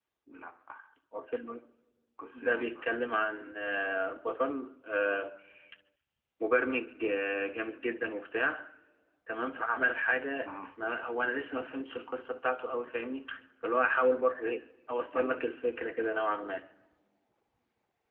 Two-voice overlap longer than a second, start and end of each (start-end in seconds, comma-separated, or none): none